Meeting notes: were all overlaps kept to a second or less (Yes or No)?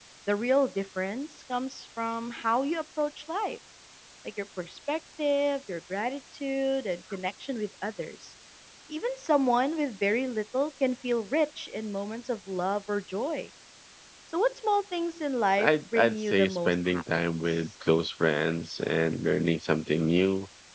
No